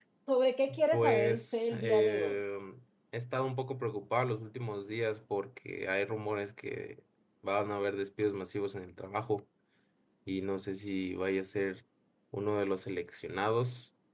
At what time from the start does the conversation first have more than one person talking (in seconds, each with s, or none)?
0.9 s